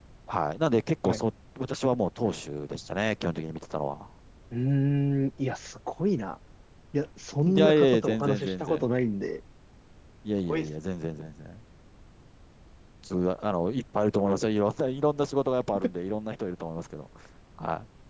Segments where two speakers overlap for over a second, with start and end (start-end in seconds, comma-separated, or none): 7.5-8.8